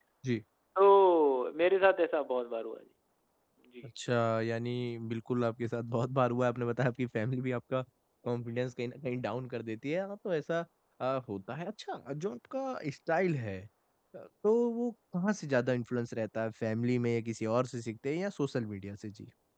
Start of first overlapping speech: none

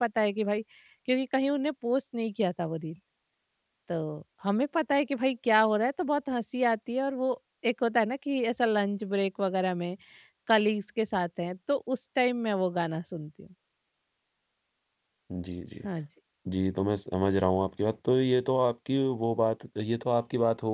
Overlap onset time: none

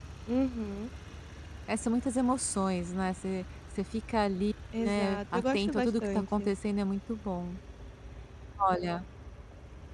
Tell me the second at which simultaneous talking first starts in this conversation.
4.7 s

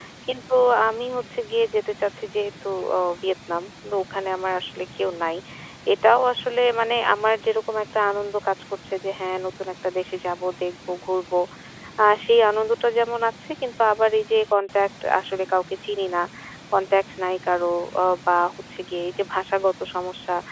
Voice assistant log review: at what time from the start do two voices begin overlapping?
none

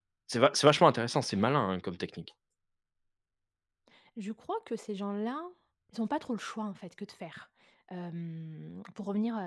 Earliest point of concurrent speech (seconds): none

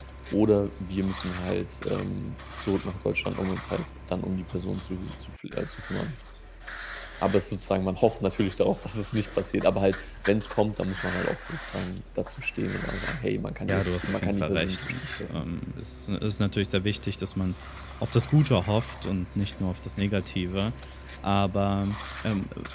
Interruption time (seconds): 13.7 s

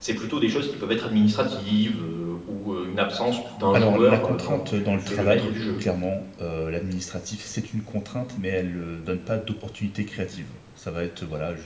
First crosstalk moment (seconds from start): 3.7 s

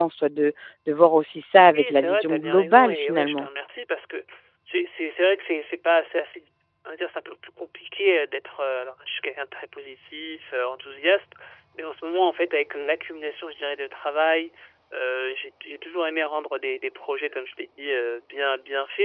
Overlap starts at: 1.7 s

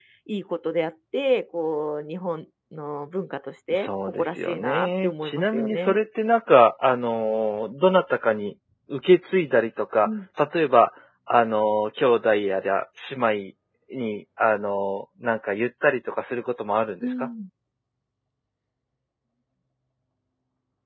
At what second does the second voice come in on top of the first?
3.8 s

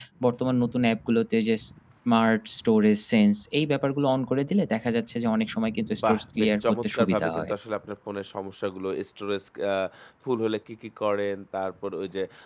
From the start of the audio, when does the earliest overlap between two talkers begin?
5.9 s

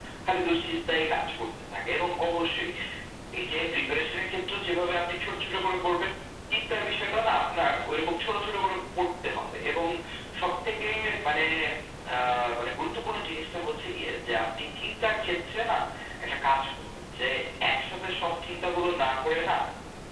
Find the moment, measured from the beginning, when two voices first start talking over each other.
none

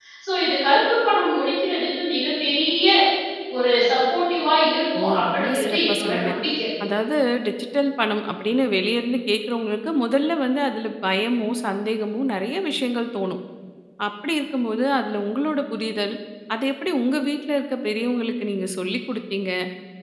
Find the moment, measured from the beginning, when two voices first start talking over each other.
5.0 s

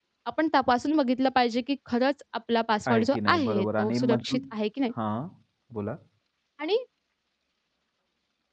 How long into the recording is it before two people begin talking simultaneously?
2.9 s

